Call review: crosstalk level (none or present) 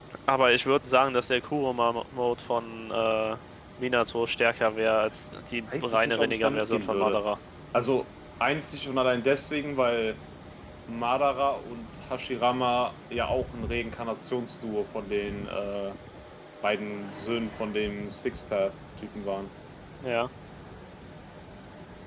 present